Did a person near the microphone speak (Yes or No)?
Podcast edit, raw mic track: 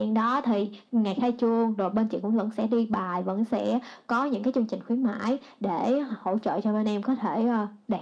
No